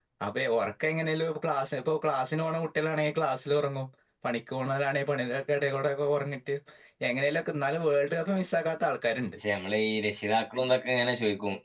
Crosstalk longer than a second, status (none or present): none